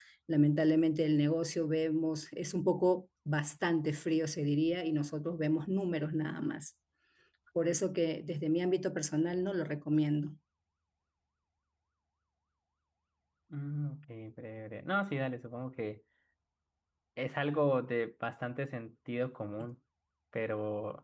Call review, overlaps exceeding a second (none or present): none